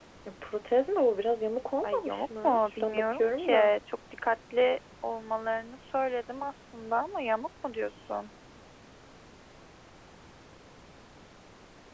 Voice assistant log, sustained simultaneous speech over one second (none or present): present